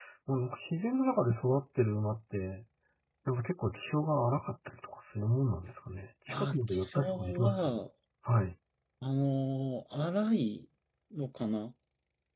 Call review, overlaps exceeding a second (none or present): present